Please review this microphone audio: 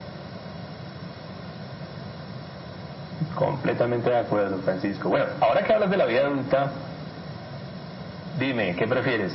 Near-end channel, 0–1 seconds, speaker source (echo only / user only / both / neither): neither